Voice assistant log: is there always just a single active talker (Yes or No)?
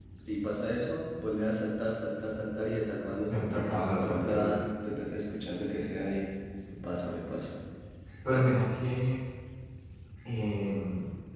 No